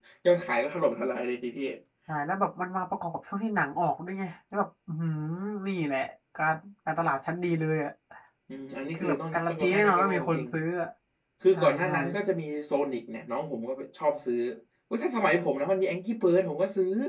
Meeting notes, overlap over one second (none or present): present